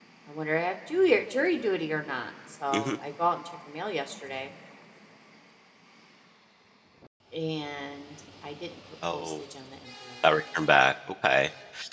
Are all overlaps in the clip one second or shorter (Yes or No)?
Yes